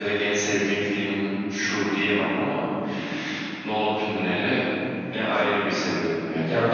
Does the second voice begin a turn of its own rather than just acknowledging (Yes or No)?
Yes